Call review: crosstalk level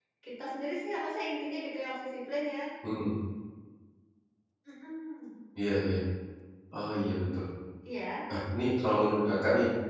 none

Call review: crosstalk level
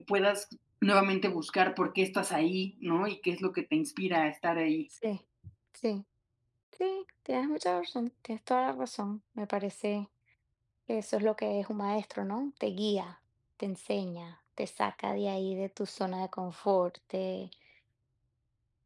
none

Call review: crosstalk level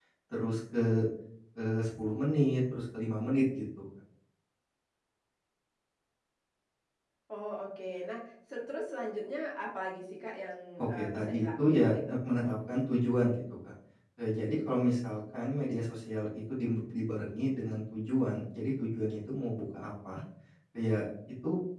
present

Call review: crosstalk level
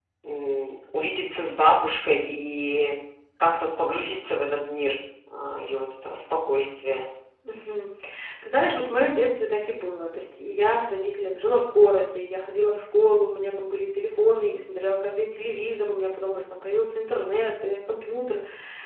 none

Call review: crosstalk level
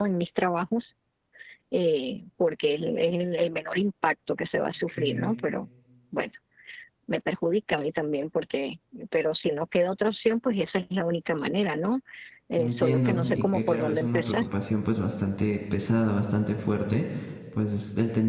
present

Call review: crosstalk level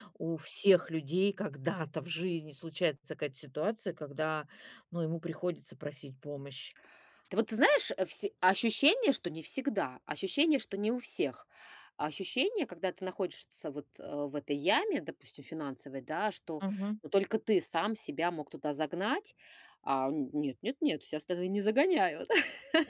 none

